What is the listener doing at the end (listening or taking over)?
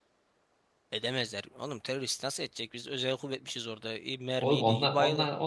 taking over